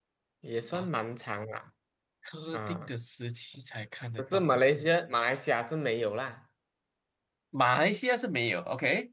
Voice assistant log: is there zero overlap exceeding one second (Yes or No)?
Yes